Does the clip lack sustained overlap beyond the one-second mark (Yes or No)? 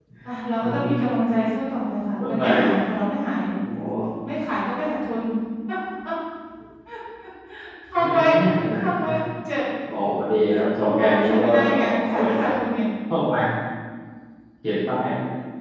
No